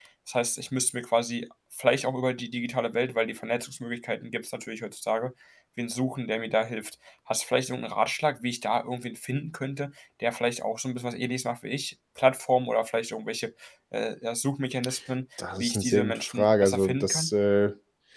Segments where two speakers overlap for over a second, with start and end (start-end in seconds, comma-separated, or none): 15.6-17.3